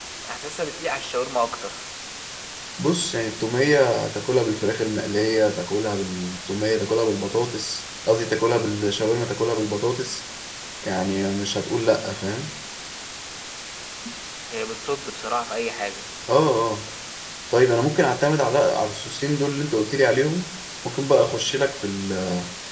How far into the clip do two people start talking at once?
none

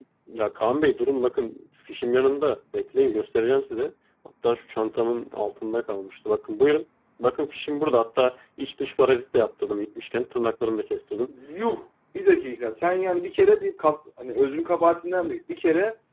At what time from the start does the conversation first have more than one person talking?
none

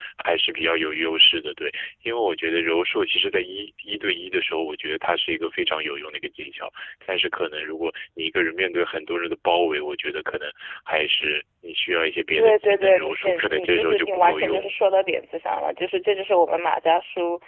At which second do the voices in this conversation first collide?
12.4 s

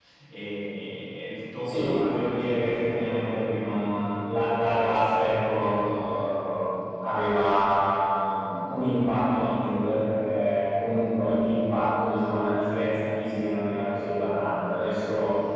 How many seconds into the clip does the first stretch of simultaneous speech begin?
1.6 s

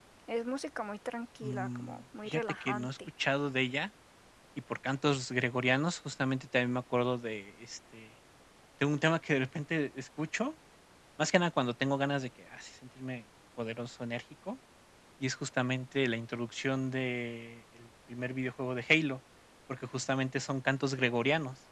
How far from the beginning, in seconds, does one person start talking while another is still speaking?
1.4 s

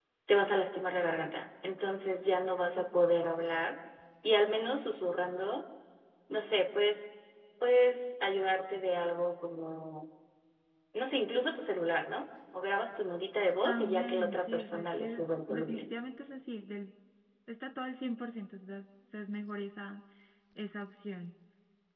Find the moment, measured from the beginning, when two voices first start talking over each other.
13.7 s

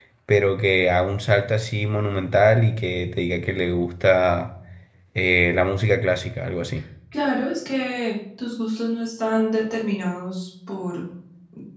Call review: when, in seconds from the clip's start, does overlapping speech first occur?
none

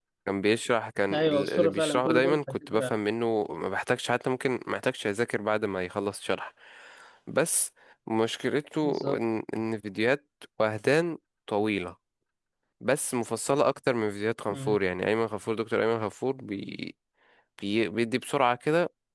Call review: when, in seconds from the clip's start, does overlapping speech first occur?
1.1 s

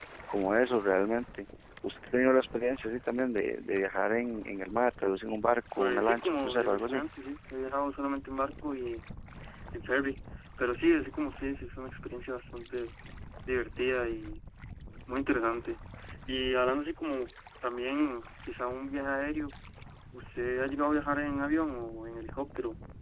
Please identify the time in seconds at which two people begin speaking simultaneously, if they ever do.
5.8 s

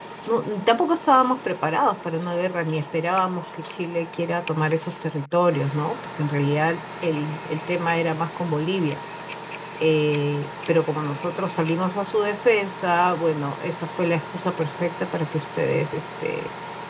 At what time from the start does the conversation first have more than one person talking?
none

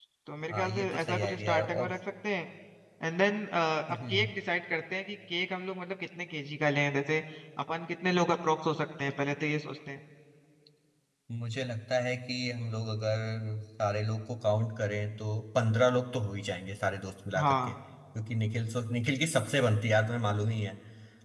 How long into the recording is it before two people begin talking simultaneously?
0.5 s

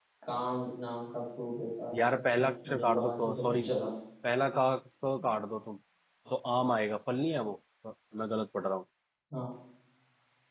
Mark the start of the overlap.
1.9 s

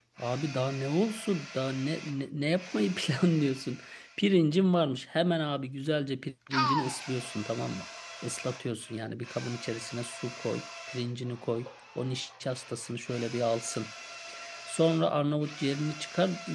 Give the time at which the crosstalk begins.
none

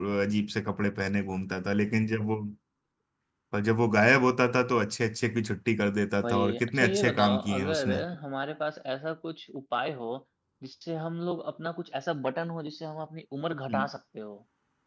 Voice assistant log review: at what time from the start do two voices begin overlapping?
6.2 s

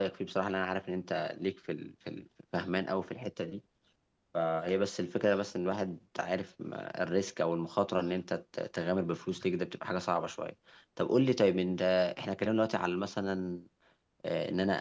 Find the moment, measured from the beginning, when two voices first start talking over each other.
none

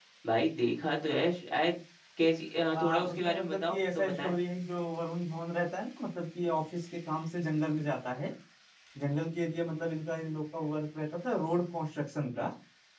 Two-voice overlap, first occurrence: 2.7 s

